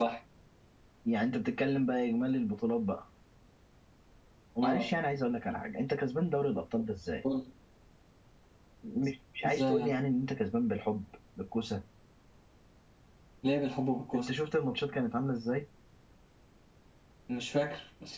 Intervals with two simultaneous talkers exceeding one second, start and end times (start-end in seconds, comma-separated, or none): none